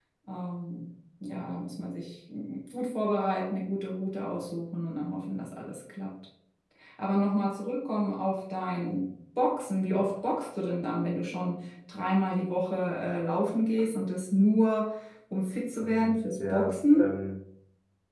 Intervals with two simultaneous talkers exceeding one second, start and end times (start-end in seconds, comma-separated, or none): 15.8-17.1